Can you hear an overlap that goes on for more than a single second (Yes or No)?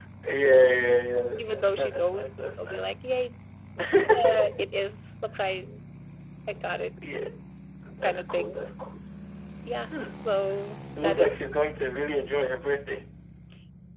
Yes